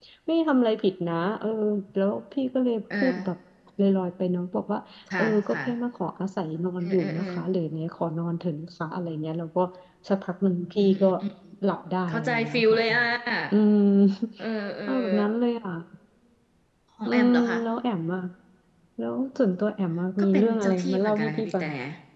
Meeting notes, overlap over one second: present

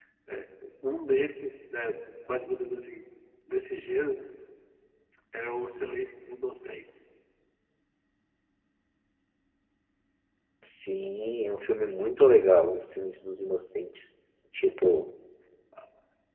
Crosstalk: none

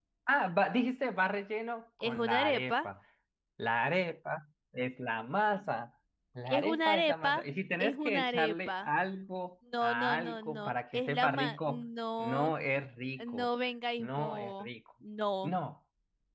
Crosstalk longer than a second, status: present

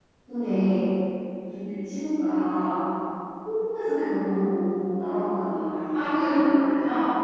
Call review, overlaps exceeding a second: none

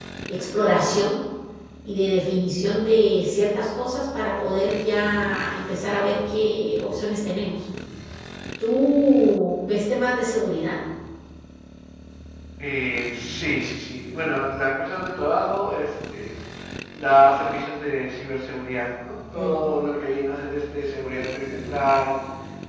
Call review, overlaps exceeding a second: none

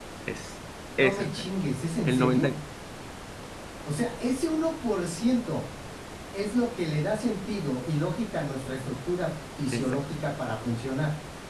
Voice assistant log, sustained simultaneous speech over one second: none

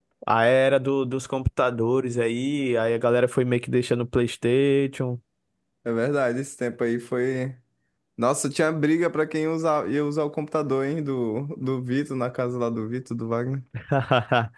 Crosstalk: none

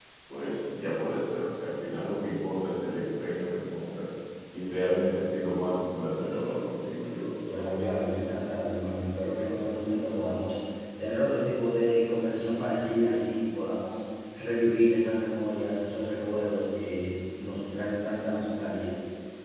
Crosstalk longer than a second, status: none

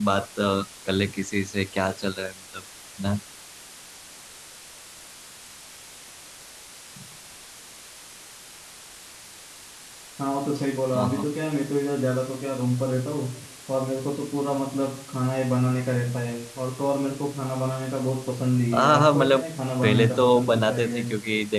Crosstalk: present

